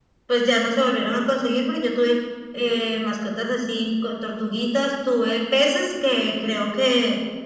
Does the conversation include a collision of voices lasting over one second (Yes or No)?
No